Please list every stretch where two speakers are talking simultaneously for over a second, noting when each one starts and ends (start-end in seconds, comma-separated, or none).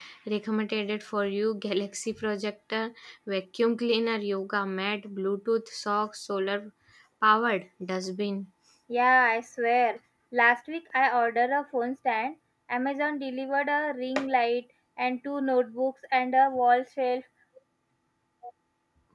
none